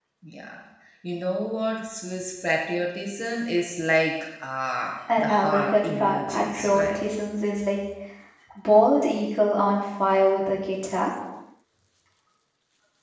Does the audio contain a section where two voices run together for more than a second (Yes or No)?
Yes